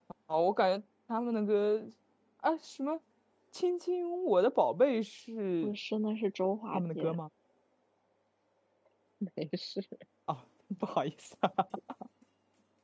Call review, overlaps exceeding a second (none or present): none